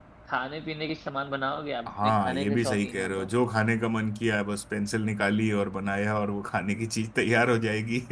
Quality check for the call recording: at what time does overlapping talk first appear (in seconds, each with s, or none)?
1.9 s